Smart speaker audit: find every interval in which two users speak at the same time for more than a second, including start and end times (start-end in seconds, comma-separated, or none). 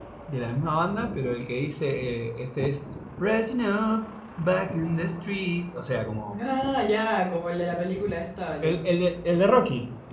none